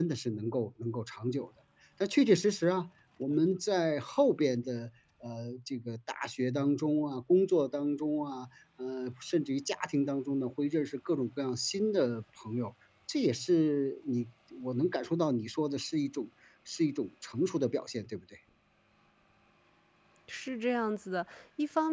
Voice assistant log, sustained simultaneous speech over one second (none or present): none